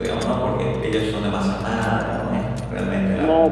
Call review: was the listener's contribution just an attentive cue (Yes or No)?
No